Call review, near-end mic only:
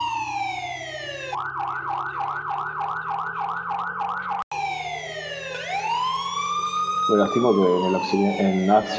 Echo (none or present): none